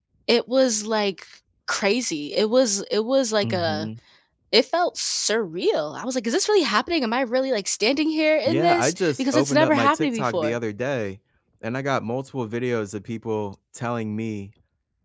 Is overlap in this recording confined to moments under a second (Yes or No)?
No